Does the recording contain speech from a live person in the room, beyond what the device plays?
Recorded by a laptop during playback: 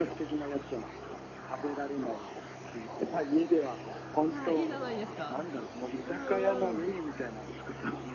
Yes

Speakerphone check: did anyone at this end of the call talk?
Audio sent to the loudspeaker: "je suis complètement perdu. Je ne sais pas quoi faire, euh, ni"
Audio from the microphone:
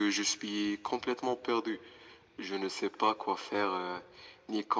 No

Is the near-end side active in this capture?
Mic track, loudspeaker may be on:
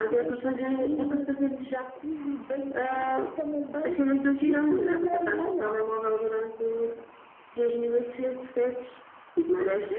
No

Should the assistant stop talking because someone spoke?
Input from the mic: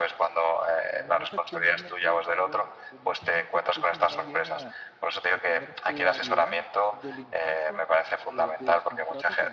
Yes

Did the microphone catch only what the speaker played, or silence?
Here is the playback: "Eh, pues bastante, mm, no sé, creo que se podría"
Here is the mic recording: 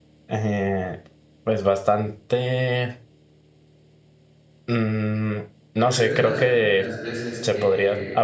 No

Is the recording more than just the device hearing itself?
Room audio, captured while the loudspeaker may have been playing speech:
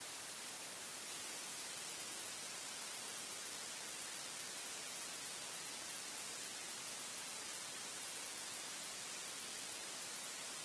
No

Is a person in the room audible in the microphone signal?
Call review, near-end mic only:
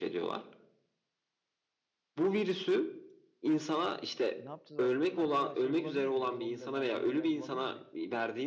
Yes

